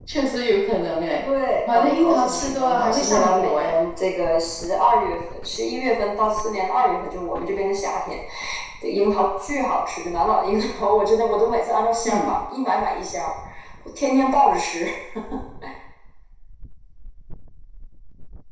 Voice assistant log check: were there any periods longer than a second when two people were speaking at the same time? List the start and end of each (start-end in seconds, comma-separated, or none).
1.7-3.7